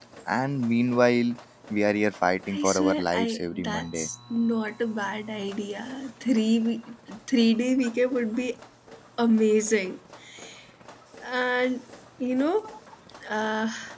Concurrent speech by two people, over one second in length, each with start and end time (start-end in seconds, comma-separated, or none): 2.5-4.1